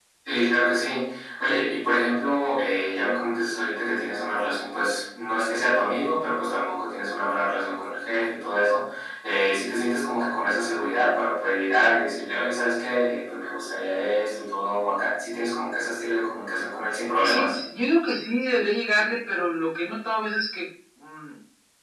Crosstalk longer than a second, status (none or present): none